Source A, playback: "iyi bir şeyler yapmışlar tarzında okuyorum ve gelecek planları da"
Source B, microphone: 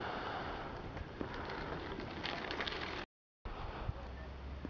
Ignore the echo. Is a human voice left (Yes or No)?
No